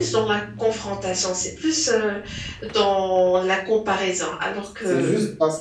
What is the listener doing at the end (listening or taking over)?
taking over